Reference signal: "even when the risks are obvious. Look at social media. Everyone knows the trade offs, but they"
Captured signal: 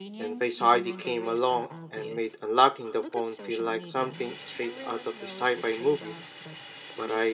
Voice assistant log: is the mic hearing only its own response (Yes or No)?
No